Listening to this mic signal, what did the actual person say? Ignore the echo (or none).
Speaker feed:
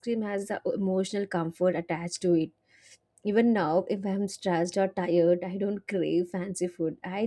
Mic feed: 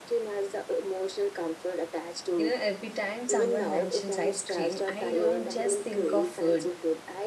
You know, every time someone mentions ice cream, I don't just think of food.